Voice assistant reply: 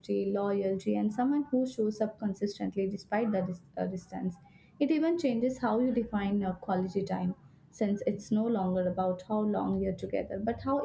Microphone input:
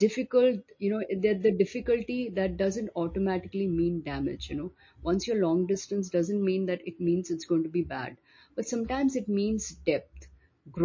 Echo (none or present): none